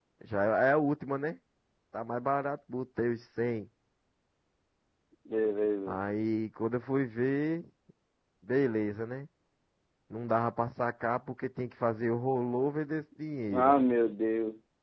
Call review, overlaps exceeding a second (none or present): none